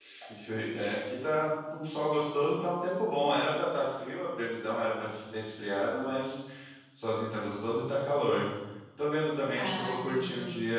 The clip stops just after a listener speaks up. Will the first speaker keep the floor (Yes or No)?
Yes